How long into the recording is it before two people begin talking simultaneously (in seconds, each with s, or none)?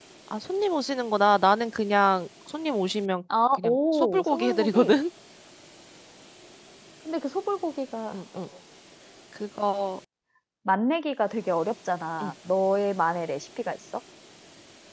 3.5 s